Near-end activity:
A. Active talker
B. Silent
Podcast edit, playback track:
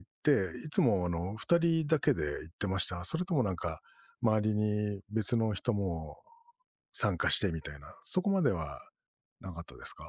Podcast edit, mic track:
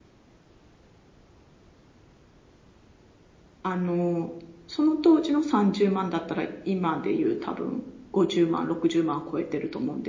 A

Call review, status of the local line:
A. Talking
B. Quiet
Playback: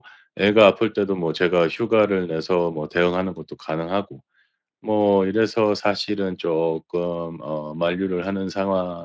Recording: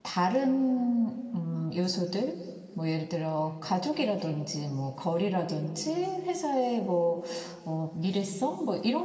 A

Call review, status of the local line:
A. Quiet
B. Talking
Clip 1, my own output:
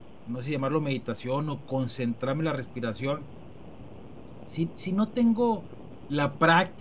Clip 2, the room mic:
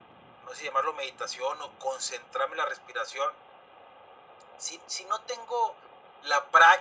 A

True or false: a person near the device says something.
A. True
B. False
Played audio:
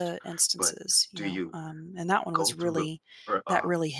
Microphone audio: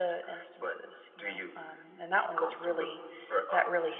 B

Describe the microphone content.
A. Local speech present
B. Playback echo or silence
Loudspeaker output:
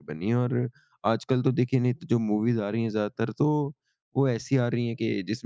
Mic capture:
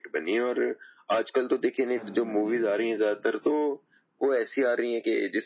A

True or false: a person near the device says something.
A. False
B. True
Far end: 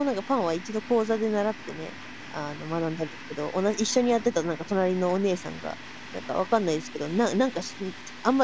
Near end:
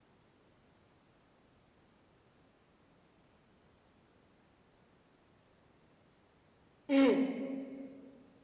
B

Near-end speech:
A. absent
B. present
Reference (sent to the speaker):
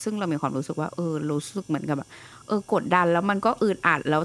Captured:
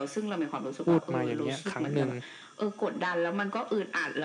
B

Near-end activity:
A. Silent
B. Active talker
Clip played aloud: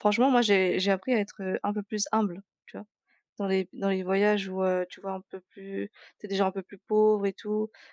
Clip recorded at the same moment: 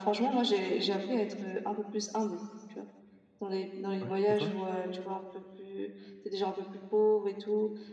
B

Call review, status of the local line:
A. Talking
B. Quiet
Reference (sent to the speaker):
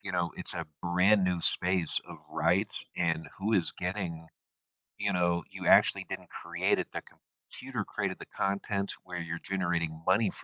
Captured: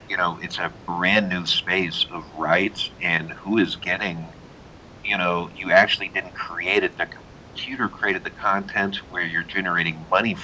B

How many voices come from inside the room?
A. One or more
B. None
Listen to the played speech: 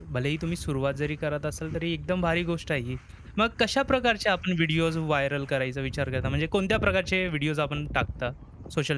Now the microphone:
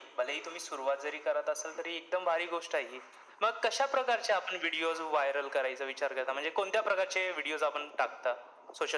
B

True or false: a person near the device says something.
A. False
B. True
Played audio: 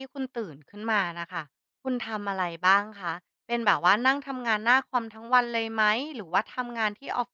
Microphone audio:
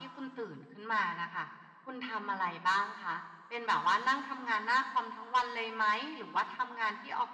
A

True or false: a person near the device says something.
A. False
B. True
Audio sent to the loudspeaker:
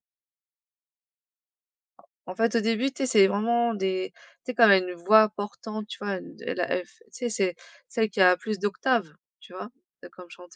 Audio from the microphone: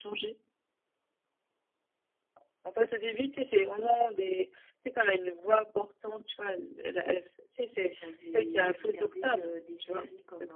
B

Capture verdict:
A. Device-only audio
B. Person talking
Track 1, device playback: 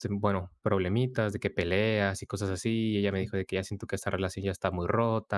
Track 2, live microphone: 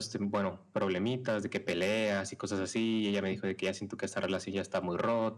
A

